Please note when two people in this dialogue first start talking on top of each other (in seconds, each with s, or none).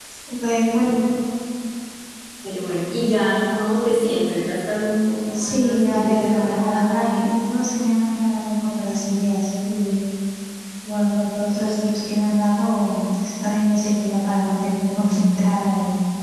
5.3 s